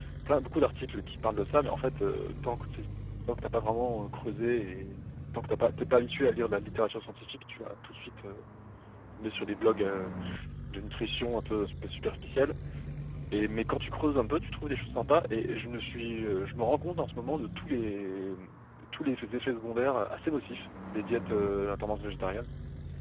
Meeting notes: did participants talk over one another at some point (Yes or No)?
No